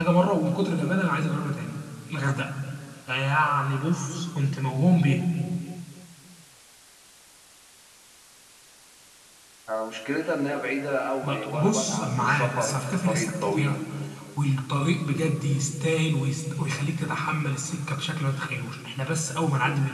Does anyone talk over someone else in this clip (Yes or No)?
Yes